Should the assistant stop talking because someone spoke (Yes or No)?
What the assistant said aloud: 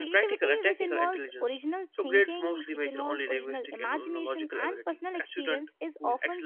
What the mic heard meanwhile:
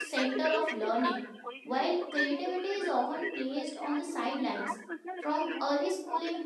Yes